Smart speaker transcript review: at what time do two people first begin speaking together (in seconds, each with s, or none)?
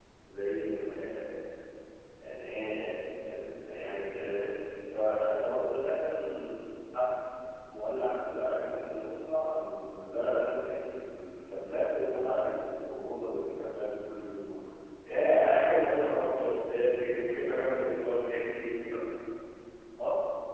none